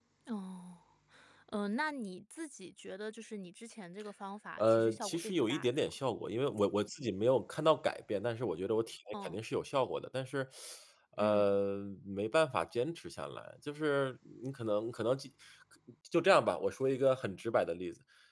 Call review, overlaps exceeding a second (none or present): present